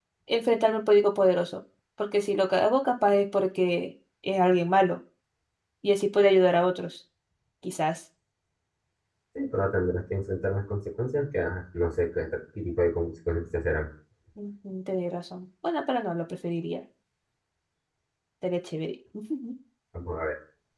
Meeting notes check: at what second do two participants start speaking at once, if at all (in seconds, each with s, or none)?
none